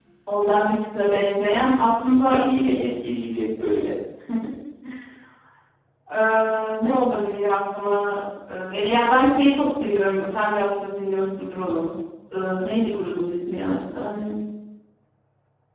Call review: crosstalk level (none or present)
none